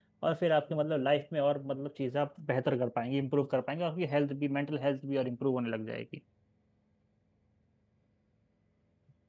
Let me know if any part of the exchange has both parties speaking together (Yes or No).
No